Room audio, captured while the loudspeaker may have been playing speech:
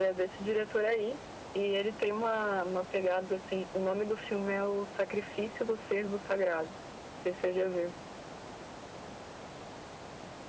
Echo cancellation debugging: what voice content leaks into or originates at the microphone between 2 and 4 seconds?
echo only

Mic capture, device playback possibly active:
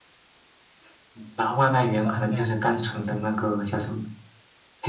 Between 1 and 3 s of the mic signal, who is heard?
both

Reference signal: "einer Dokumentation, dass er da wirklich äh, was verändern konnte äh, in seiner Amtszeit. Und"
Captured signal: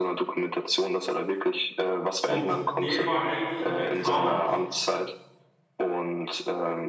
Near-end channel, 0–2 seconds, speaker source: echo only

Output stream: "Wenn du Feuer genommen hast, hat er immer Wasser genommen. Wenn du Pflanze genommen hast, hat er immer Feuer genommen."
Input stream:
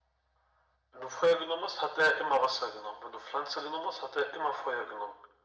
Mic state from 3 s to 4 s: echo only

